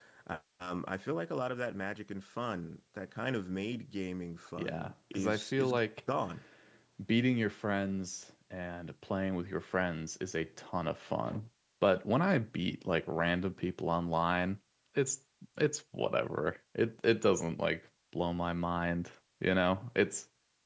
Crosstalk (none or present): present